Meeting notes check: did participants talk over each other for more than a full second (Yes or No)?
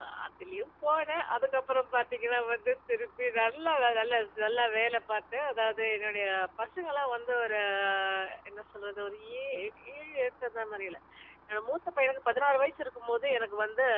No